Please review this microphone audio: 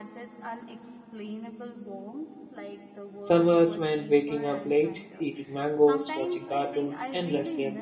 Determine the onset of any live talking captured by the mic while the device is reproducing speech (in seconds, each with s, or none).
3.2 s